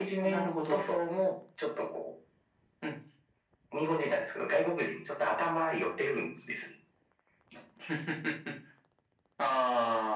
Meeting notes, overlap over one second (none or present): none